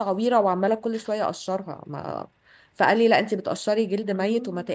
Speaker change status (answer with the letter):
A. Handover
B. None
B